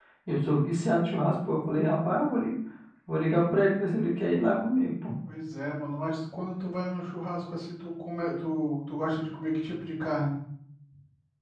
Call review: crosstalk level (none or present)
none